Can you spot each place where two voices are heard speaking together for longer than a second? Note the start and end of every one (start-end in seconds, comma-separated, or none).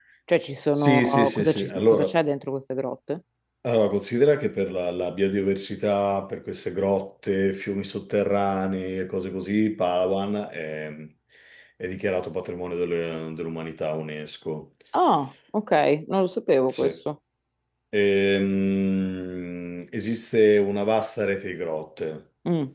0.8-2.0